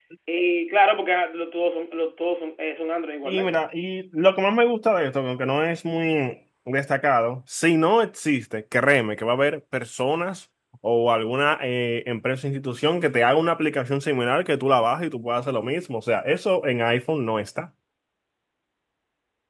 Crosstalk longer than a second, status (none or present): none